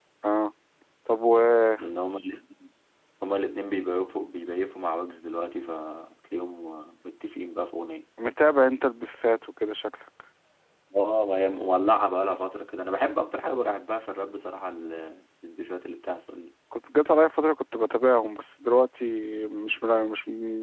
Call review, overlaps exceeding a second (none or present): none